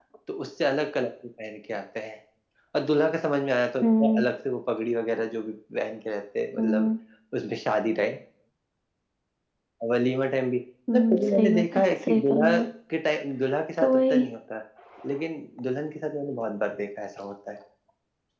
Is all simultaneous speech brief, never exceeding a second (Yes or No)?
No